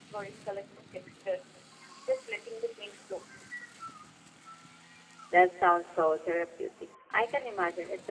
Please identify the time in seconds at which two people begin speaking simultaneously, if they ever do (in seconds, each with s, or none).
none